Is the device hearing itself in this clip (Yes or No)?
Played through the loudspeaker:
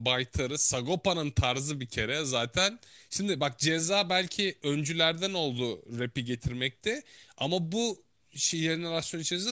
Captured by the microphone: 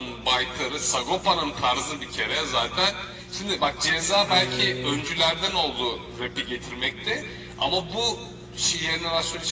Yes